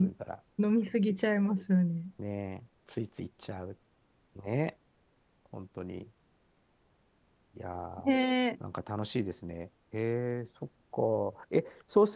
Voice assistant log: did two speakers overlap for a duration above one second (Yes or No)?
No